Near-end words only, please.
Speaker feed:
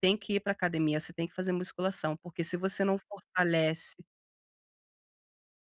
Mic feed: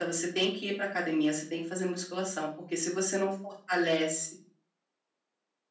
none

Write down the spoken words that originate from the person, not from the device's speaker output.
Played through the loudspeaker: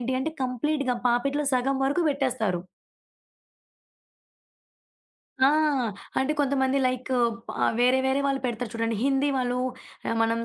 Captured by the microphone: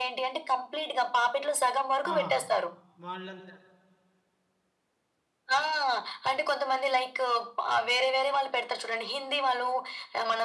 ఆహా! వాళ్ళంతా

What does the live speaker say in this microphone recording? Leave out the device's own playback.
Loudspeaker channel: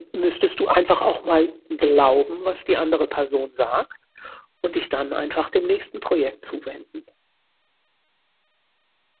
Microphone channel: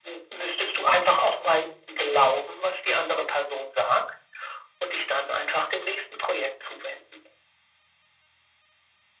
none

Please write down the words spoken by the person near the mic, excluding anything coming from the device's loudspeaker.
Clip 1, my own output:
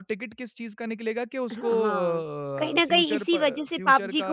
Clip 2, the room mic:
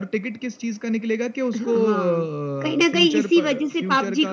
none

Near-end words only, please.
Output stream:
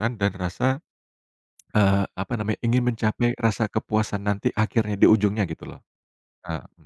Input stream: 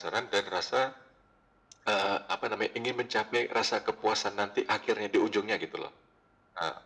none

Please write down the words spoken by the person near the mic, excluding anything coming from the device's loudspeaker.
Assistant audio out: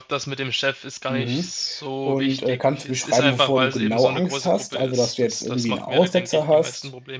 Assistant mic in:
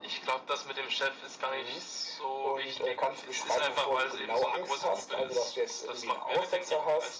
none

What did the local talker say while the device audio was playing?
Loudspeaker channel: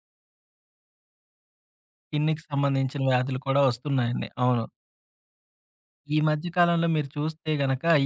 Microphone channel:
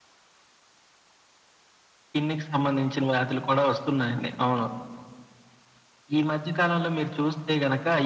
none

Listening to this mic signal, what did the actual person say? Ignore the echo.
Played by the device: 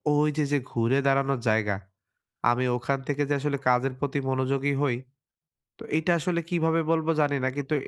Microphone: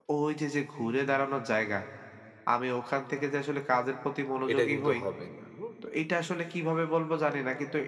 এটা কিন্তু হবে না, হুম?

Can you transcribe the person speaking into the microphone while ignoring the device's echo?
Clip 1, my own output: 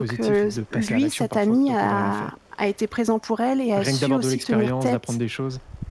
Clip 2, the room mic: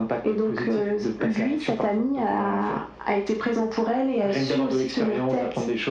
none

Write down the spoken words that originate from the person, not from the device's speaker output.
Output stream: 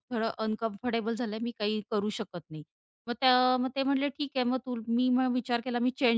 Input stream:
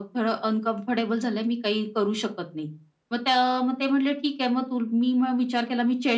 none

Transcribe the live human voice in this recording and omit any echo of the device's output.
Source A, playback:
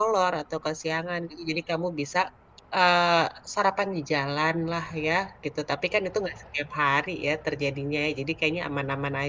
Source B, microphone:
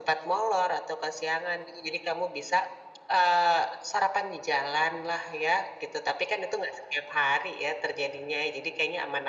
none

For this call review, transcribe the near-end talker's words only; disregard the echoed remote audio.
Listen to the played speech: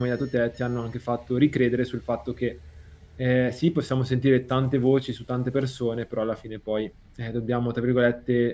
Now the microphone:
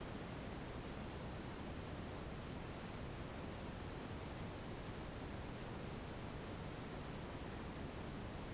none

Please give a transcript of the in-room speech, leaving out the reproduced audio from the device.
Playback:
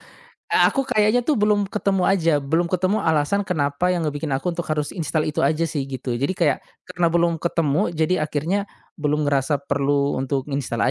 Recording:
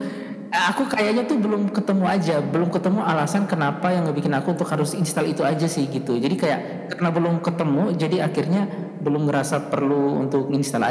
none

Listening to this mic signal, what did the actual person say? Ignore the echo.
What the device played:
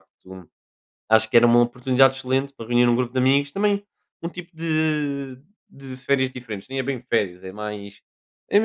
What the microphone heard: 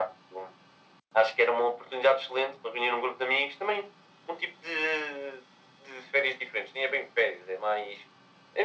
none

